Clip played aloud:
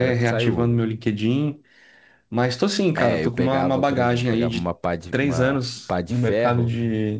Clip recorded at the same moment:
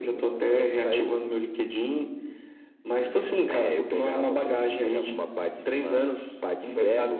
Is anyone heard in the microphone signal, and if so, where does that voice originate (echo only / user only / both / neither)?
both